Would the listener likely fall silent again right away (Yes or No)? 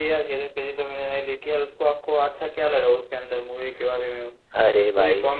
No